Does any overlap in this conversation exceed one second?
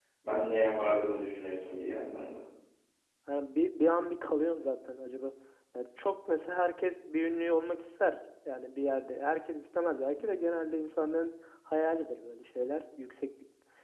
No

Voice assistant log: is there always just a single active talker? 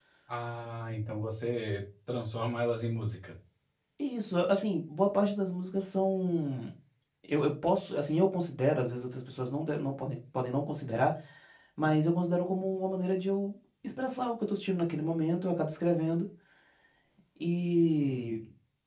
Yes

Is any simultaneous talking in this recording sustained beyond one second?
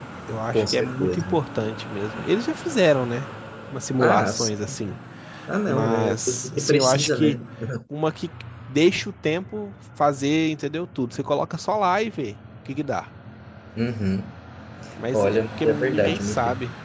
Yes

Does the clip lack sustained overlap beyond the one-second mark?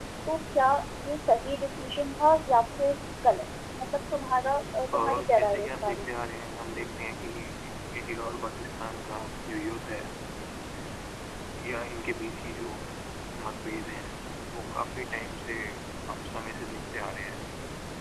No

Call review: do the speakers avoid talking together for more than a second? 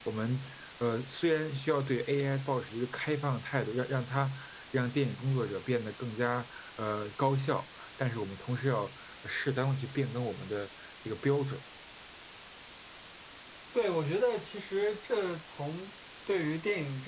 Yes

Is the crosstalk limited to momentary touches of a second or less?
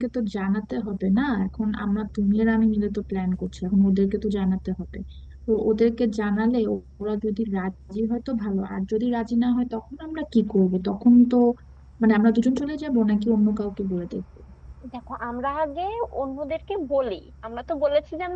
Yes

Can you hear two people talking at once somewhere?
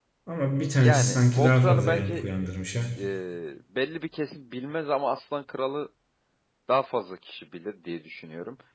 Yes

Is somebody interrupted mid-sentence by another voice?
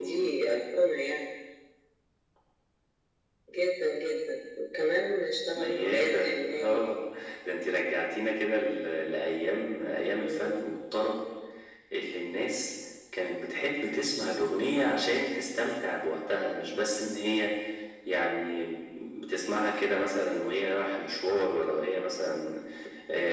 Yes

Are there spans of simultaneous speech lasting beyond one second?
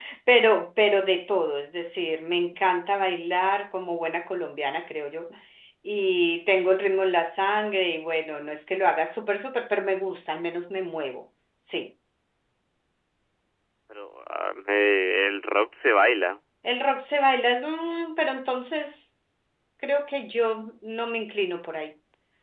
No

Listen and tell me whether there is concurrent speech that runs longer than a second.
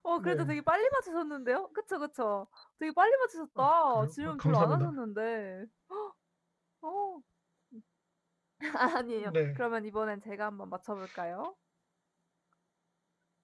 Yes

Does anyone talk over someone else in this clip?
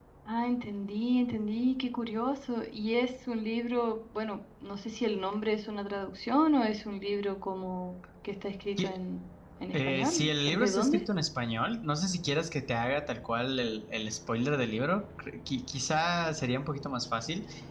Yes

